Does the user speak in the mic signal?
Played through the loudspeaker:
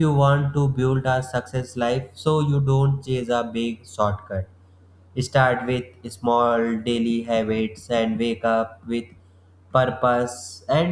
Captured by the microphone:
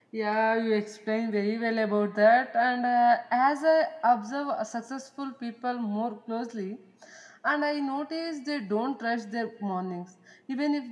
Yes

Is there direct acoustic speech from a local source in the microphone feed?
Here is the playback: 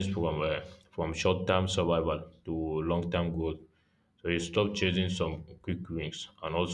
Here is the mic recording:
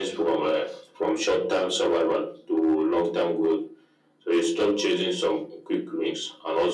No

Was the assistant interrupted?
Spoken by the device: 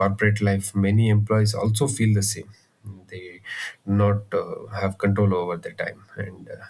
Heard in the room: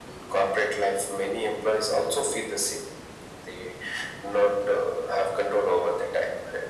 No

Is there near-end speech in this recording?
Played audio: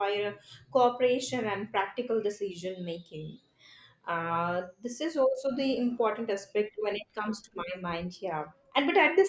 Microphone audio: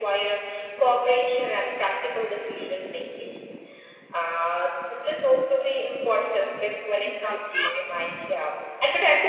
Yes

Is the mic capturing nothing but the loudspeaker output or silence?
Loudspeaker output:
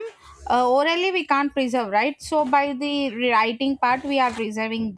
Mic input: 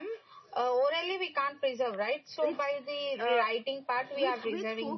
No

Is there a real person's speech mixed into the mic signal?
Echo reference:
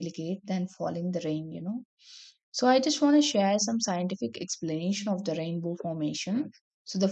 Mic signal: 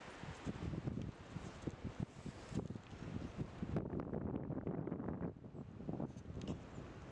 No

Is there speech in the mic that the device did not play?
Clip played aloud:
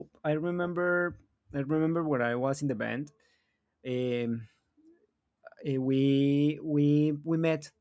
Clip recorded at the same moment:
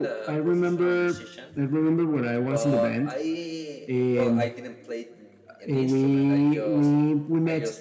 Yes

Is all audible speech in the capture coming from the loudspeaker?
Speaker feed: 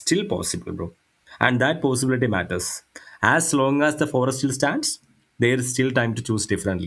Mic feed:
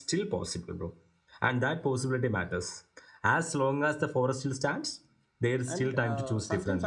No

